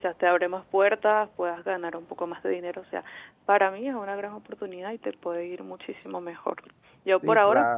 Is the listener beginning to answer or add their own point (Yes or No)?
Yes